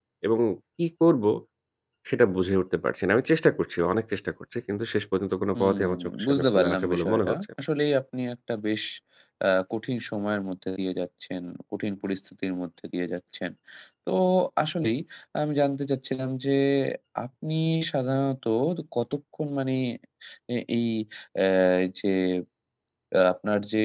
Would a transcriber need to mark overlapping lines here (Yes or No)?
Yes